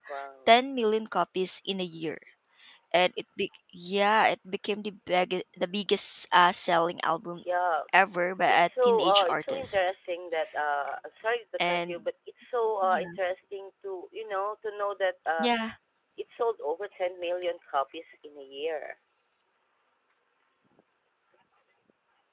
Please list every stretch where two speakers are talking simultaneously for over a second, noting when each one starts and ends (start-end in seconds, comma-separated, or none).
8.5-9.8